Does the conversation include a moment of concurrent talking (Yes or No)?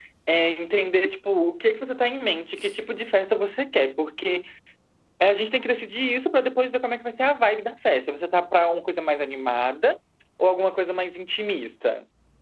No